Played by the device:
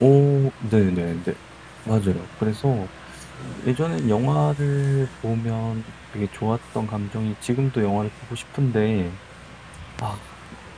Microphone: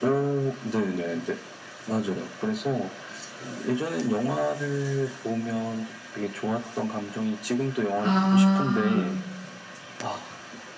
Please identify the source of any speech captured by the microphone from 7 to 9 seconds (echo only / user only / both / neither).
both